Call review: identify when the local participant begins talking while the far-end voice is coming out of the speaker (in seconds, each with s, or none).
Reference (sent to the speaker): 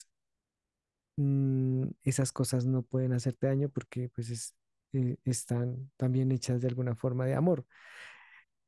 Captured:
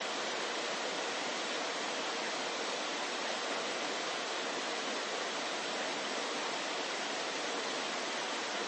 none